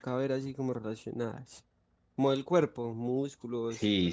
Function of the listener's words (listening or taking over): taking over